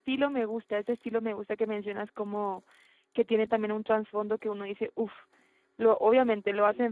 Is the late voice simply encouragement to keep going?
Yes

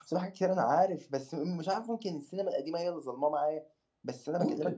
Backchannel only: Yes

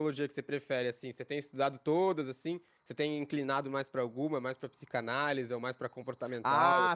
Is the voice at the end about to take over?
Yes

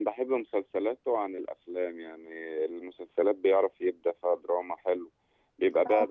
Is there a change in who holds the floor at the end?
No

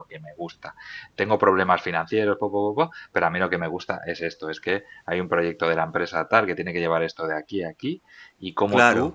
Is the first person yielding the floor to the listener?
No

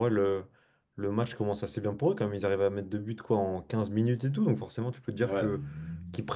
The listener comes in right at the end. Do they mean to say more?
No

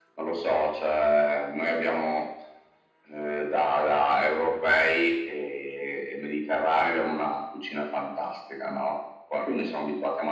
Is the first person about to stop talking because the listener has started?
No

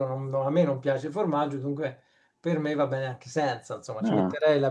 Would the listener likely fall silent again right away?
Yes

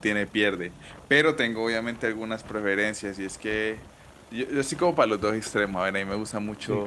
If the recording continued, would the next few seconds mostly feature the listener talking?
No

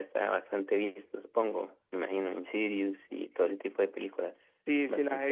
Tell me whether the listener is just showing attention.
No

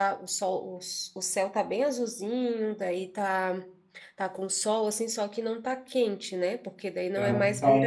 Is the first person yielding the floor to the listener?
Yes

